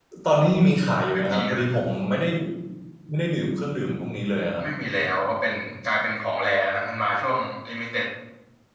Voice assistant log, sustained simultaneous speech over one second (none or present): none